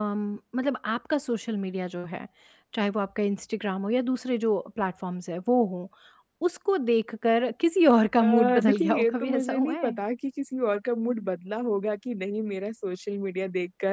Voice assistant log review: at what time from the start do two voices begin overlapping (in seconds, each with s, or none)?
8.2 s